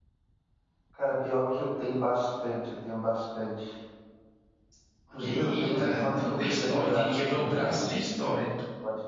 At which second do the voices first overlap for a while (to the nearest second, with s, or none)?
5 s